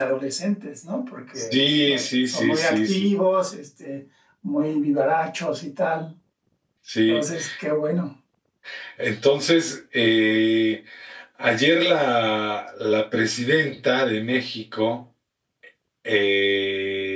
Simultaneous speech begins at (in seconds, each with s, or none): 1.4 s